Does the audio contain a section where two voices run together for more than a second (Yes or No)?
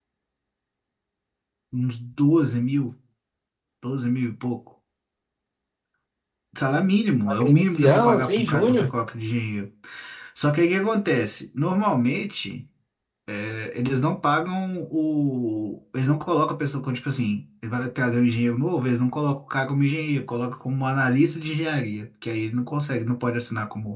Yes